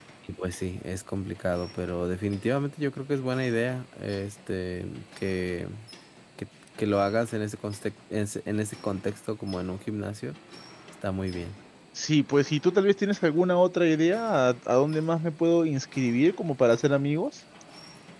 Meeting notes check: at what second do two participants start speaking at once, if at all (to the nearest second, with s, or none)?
none